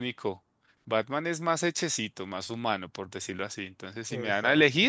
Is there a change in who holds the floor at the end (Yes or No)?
No